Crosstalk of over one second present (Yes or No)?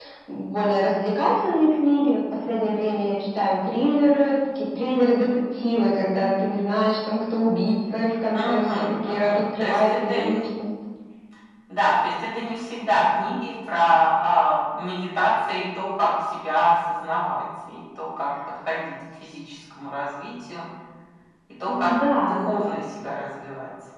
Yes